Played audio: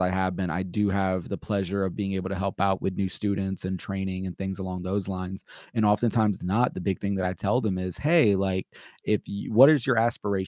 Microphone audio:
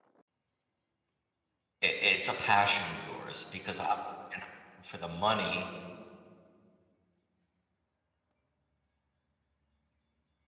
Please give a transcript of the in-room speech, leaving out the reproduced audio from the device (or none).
i it's a passion of yours because obviously you're not in it for the money,